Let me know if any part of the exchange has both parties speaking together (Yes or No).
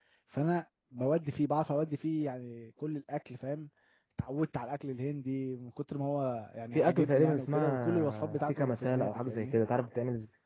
Yes